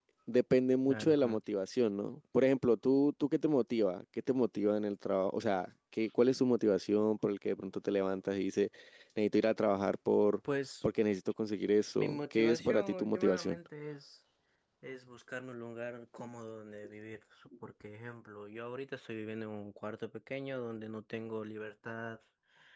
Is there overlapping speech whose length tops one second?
Yes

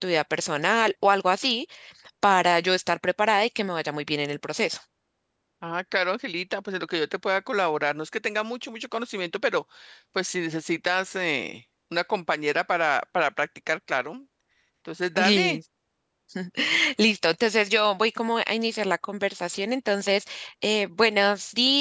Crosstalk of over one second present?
No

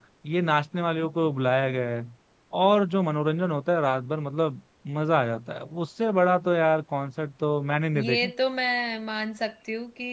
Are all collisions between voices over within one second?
Yes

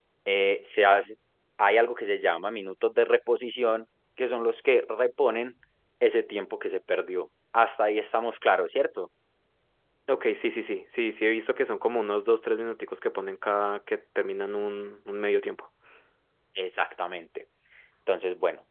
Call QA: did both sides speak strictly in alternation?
Yes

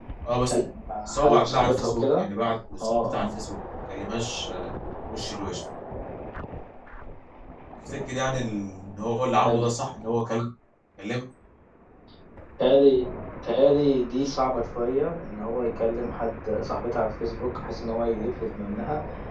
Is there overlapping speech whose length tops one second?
Yes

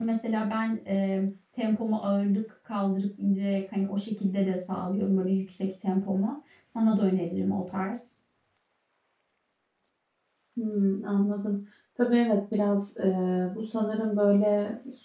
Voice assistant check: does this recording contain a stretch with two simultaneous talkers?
No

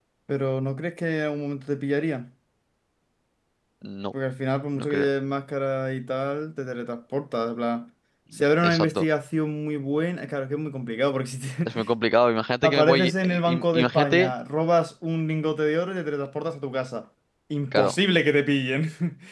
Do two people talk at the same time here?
Yes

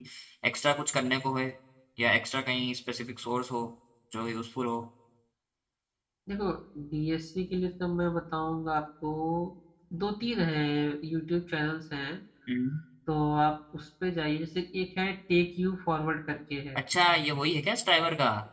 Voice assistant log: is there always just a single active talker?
Yes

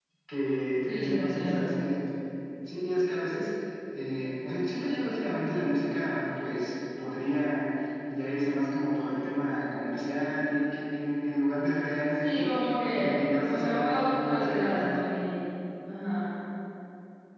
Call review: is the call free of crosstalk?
No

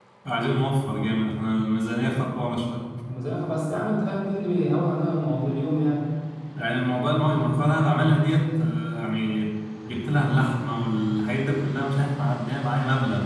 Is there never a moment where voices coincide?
Yes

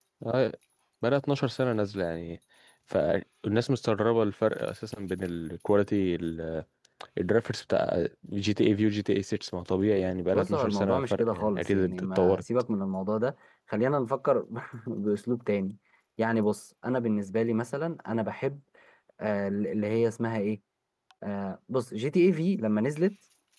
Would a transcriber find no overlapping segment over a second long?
No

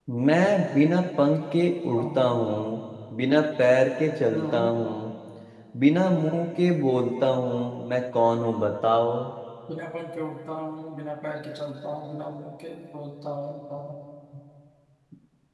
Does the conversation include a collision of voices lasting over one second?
No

